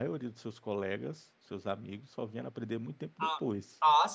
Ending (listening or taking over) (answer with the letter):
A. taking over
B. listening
A